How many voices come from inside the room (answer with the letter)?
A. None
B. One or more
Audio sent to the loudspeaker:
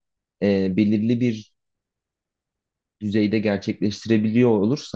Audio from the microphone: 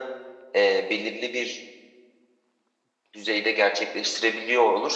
A